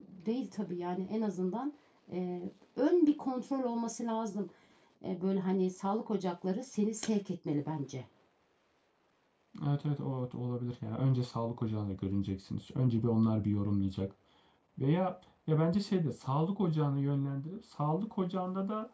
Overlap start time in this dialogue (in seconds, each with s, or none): none